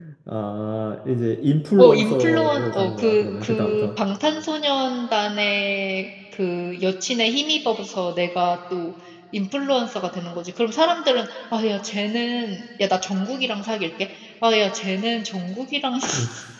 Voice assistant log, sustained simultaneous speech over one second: present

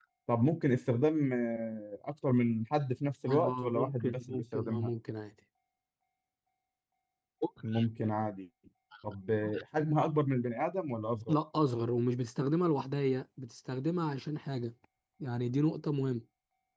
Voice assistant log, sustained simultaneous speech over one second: present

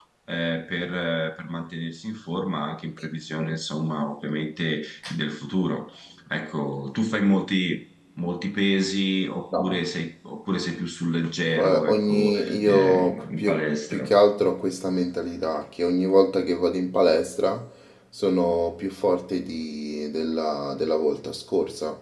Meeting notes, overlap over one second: present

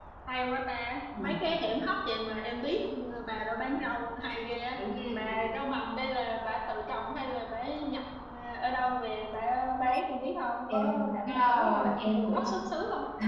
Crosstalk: present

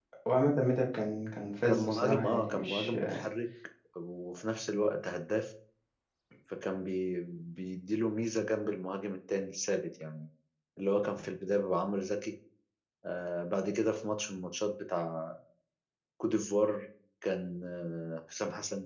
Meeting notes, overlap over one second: present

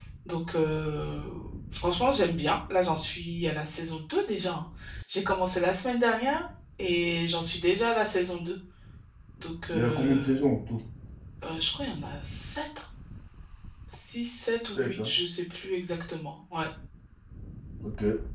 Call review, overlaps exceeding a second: none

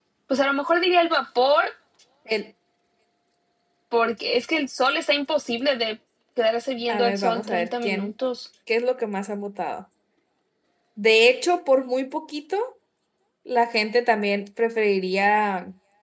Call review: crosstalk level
present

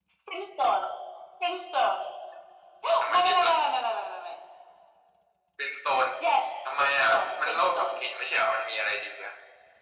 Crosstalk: present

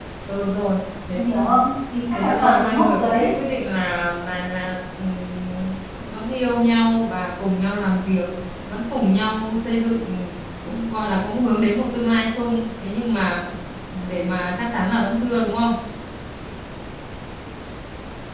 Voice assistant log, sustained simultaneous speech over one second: present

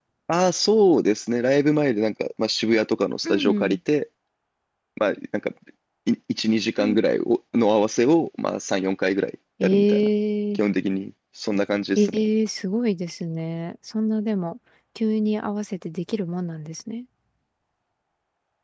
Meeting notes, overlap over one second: none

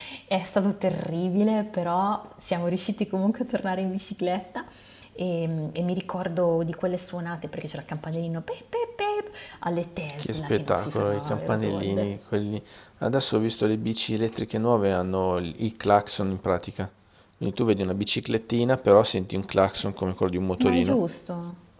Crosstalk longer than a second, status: present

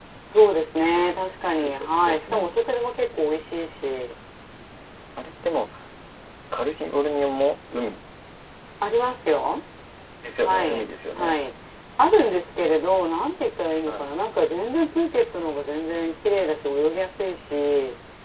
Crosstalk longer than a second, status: present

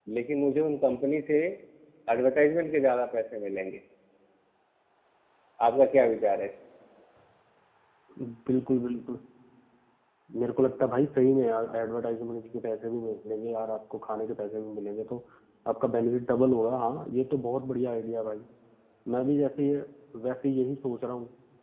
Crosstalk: none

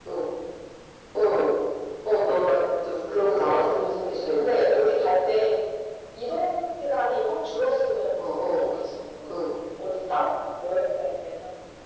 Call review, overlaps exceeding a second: present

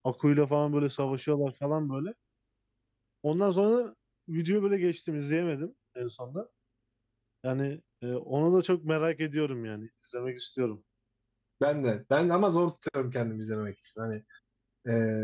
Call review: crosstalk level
none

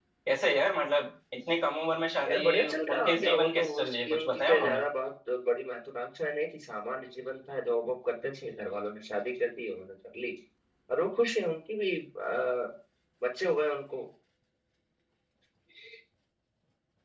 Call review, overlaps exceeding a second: present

